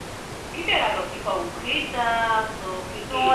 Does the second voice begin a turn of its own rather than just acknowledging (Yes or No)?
Yes